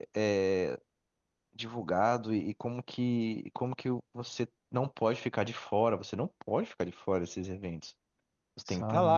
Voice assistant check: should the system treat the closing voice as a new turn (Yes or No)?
No